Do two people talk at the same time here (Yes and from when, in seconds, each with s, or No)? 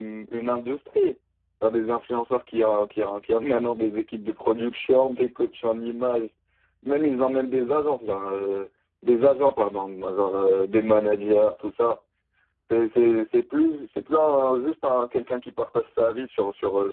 No